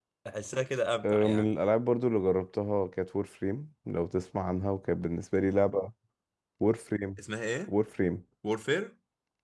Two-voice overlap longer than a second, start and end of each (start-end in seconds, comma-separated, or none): none